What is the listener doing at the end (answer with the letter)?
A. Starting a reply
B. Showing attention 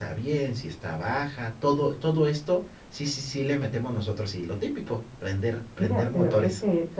A